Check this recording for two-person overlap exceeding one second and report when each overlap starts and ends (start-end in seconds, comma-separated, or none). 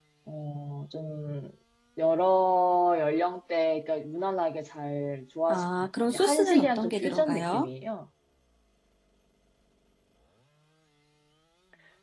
5.5-7.7